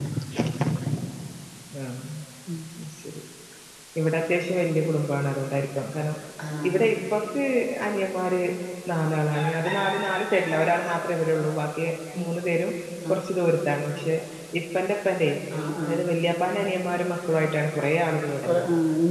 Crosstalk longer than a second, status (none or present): none